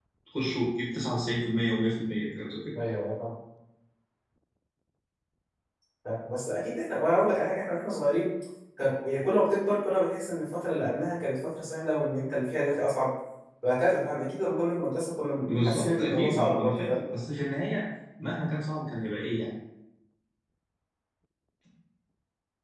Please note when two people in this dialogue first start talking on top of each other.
15.4 s

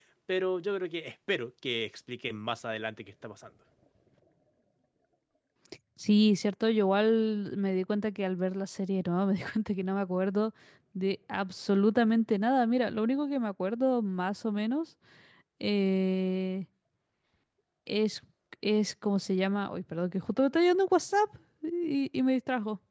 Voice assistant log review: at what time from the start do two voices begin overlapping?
none

